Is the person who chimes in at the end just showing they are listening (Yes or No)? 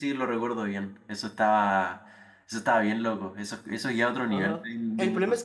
No